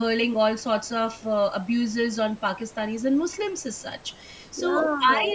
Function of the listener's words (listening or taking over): listening